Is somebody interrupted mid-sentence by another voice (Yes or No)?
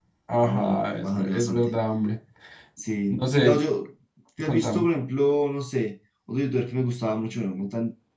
Yes